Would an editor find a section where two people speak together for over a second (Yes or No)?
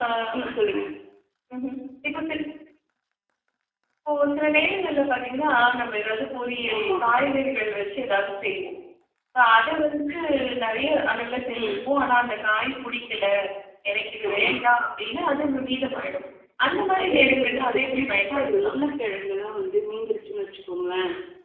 Yes